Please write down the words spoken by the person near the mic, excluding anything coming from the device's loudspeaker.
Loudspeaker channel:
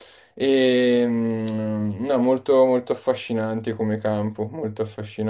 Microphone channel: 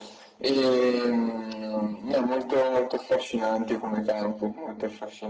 none

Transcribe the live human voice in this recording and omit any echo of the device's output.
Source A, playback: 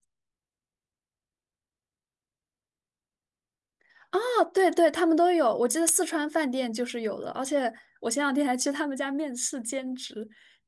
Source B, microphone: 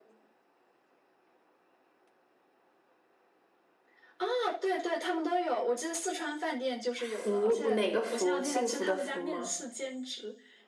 福，哪个福？幸福的福吗？

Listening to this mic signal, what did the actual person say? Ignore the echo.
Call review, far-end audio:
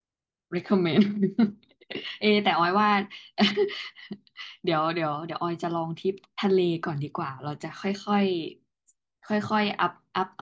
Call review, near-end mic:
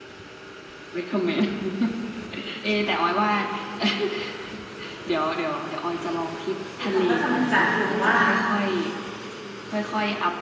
คือเขาก็จะเหมือนจัดกลุ่มว่า

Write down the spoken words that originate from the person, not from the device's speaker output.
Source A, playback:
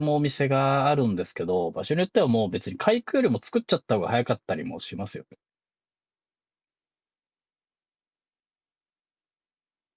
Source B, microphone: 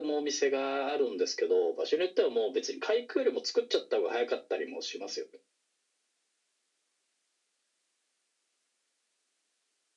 none

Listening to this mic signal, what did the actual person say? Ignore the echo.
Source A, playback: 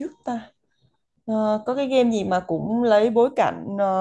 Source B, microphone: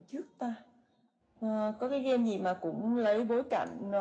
none

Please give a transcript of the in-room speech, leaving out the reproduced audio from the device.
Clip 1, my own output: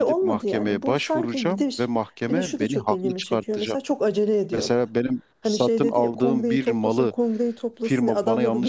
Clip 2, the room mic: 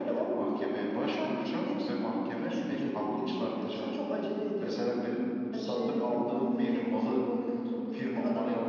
none

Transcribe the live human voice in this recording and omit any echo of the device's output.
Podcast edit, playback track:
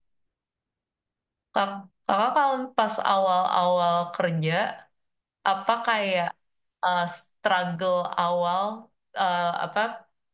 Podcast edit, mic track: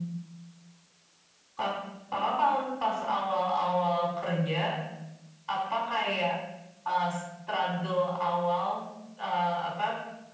none

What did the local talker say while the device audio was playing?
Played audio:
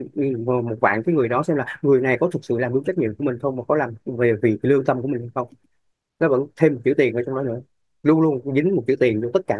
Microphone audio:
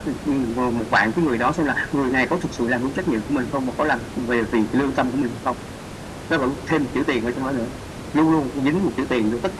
none

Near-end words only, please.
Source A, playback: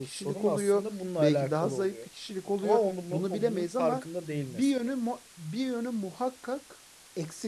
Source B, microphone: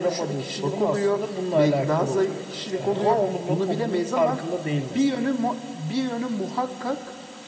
Aha.

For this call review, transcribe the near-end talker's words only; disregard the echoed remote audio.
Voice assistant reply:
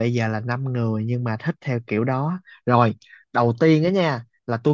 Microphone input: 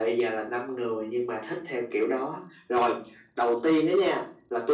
none

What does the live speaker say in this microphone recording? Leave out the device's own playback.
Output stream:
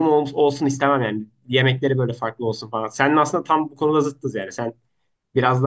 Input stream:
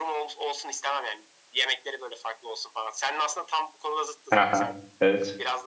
haha, evet.

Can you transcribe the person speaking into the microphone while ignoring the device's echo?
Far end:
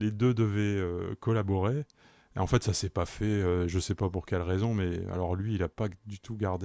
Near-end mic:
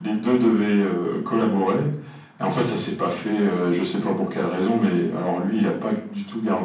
none

